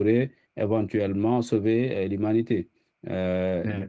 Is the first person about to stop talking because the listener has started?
Yes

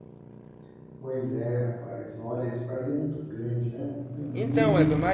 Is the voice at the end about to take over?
Yes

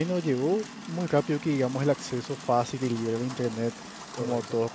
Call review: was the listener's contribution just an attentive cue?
Yes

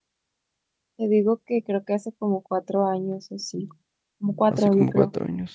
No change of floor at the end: No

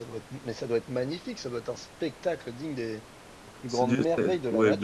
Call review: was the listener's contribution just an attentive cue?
No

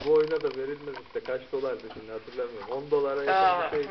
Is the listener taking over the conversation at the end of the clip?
Yes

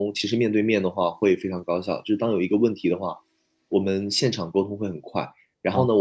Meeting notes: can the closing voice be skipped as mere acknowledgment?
Yes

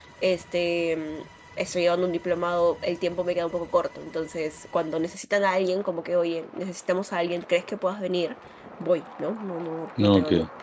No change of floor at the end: Yes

